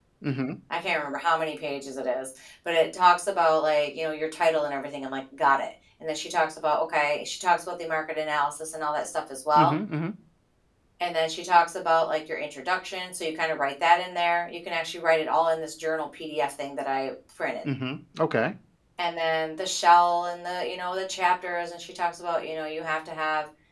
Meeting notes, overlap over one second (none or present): none